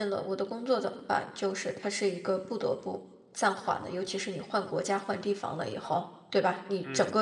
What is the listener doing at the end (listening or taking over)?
listening